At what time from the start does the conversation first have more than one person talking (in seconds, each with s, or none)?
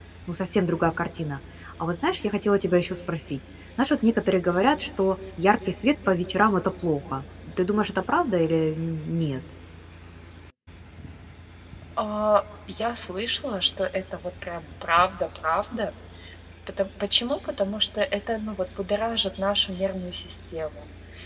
none